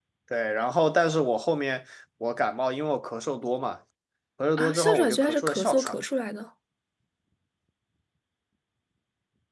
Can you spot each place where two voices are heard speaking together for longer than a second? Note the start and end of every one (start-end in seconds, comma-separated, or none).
4.6-6.0